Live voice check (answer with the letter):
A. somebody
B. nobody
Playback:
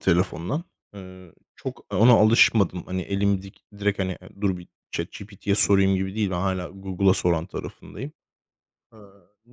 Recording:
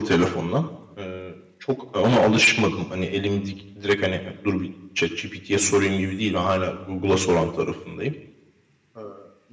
B